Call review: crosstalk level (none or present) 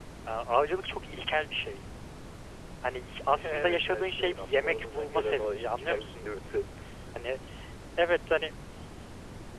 present